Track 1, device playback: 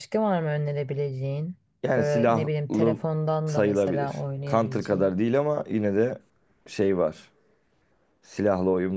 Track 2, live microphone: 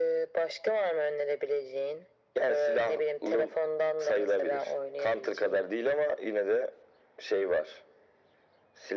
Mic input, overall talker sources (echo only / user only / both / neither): echo only